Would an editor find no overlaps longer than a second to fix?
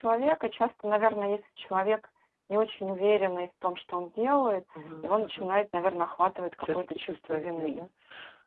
No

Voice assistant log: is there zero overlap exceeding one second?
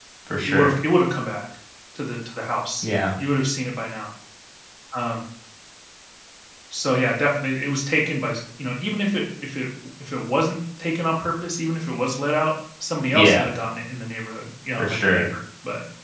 Yes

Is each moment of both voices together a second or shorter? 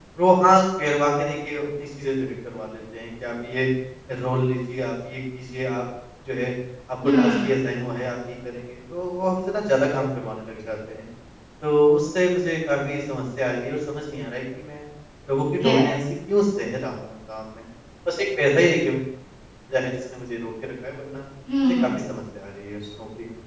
Yes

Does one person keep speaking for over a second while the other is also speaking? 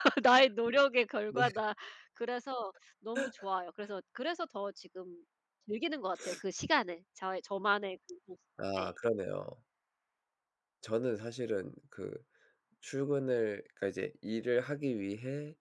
No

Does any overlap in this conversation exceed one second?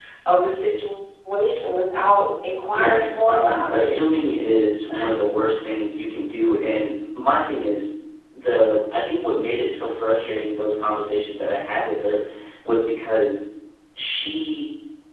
Yes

